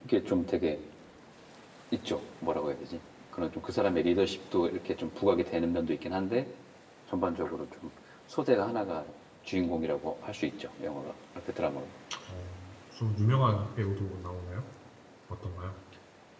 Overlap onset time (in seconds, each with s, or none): none